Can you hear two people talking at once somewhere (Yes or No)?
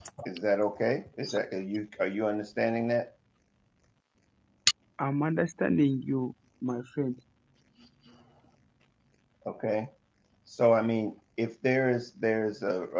No